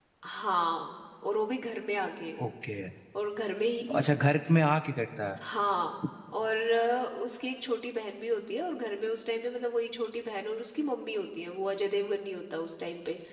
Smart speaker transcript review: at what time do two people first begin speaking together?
none

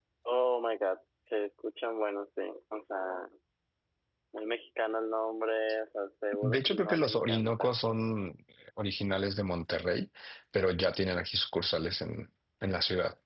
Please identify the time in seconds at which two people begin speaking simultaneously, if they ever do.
6.4 s

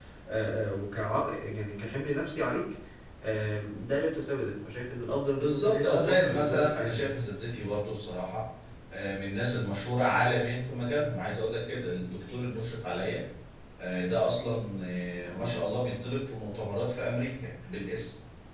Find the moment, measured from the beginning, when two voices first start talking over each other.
5.4 s

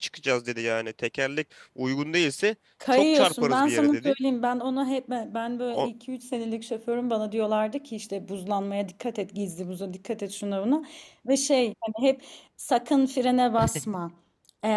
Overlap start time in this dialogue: 2.9 s

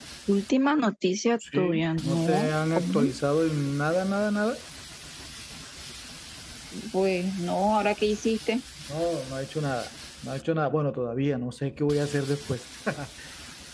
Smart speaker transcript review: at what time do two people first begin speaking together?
1.4 s

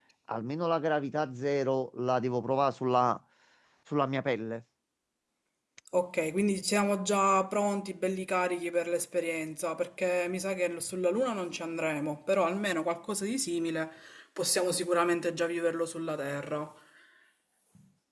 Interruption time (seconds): none

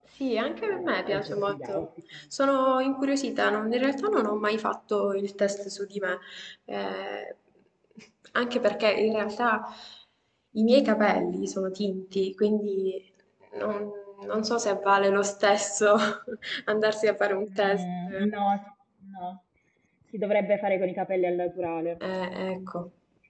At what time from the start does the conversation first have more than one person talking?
0.7 s

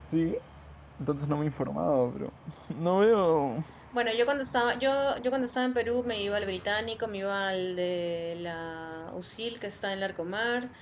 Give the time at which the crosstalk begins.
none

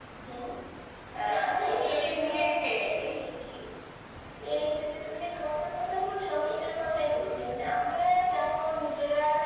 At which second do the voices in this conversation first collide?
1.2 s

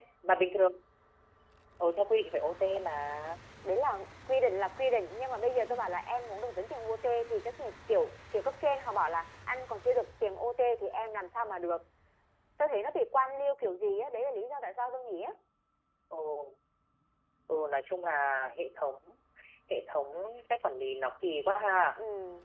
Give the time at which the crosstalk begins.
none

